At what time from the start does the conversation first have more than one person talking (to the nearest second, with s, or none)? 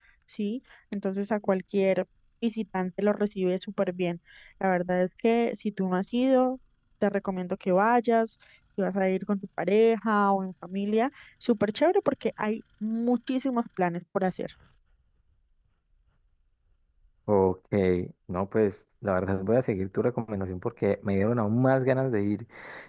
none